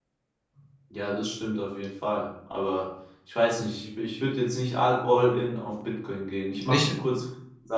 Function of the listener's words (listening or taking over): listening